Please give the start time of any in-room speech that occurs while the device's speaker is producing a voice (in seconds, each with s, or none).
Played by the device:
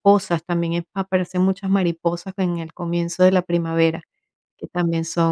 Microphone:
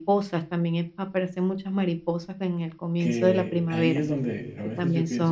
3.0 s